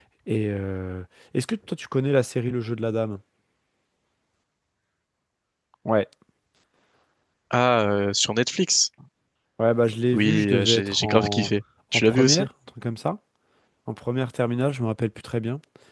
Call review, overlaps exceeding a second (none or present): present